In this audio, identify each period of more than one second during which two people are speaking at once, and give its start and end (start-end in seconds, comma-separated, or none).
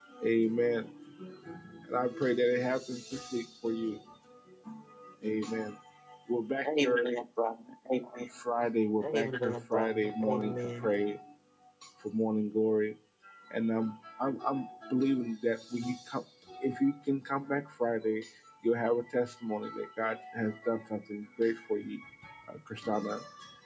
9.0-10.9